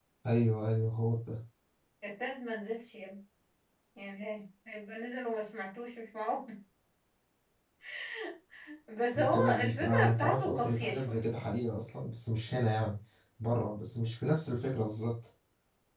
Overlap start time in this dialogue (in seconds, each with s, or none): 9.2 s